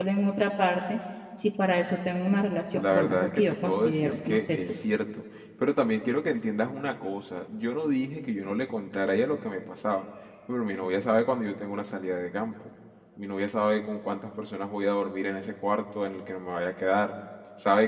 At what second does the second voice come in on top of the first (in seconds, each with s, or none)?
2.8 s